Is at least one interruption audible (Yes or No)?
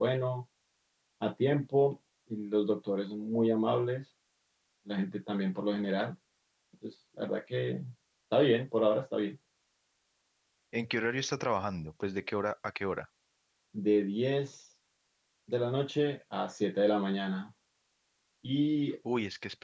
No